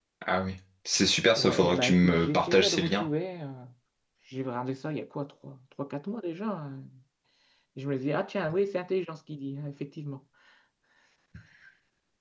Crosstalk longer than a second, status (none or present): present